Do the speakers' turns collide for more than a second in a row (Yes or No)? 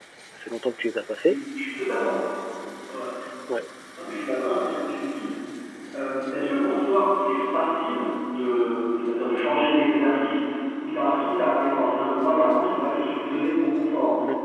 No